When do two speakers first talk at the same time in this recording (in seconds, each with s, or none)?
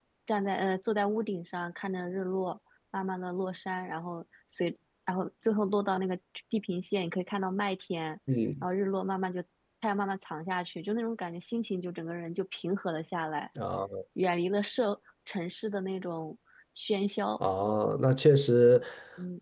none